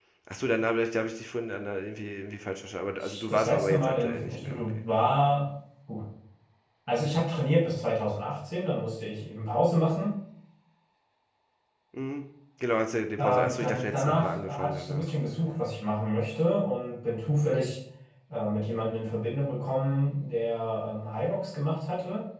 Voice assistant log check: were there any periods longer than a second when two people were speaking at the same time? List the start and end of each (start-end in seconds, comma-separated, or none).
3.0-4.8, 13.2-15.1